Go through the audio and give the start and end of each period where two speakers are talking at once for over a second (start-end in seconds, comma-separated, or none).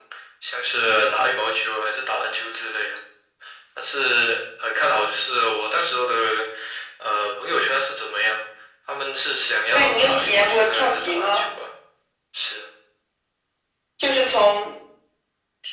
9.7-11.4